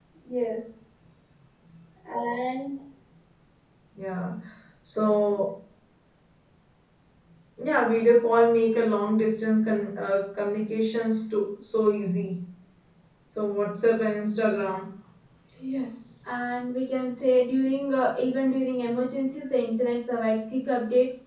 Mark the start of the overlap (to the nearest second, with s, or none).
none